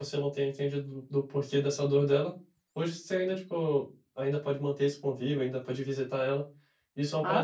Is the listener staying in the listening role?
Yes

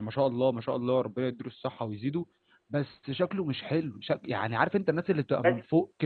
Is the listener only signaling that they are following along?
Yes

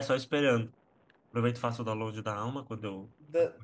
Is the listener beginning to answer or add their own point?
Yes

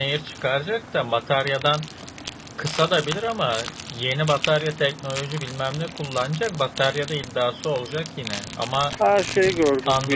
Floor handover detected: Yes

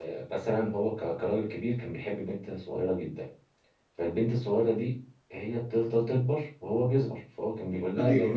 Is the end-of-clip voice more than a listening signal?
No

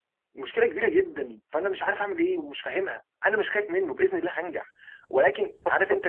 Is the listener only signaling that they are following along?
No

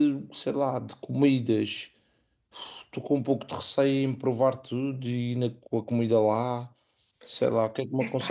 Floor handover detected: No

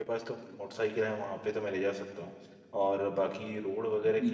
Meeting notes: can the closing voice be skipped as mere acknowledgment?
Yes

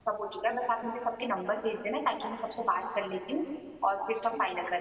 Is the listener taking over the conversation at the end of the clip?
Yes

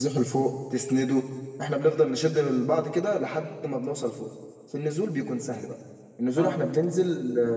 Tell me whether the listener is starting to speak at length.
No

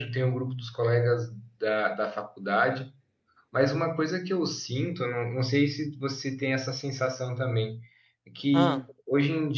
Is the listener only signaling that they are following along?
Yes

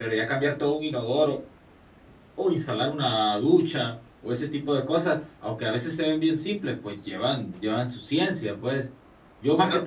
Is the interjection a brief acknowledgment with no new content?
Yes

